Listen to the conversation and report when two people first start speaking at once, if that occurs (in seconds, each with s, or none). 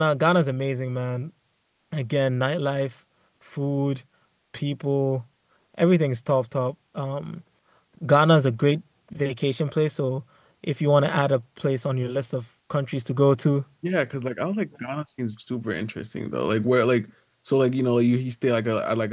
none